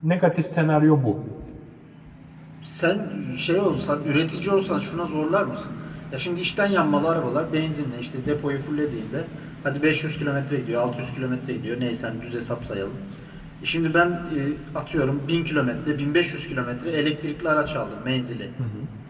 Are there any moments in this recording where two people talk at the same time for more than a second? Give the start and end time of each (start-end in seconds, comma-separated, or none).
none